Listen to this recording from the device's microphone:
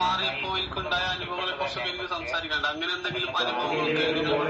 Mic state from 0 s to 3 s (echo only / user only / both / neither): echo only